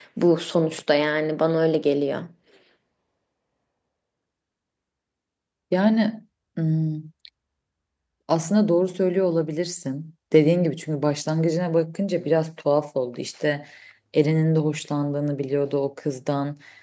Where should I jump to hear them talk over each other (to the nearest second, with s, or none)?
none